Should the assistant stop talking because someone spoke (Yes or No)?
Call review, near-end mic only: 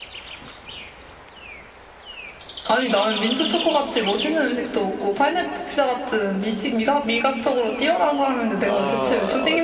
Yes